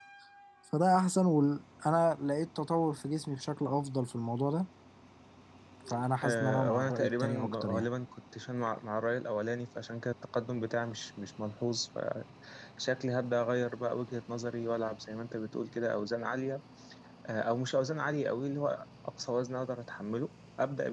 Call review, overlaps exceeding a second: present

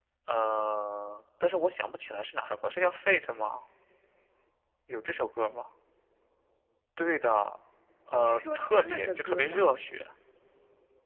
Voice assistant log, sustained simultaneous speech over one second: present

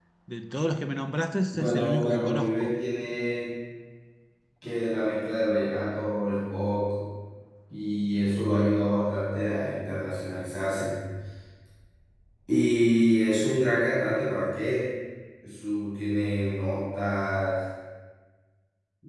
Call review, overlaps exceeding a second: present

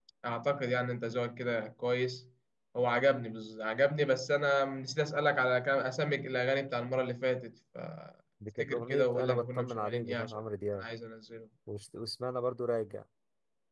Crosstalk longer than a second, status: present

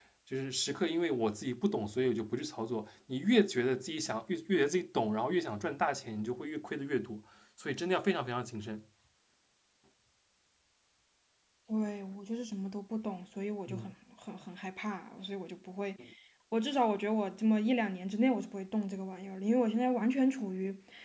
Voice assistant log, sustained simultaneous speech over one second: none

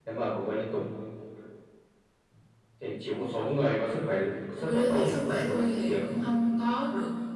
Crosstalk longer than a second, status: present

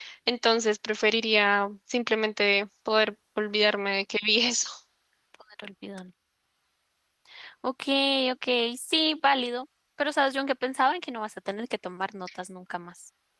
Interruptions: none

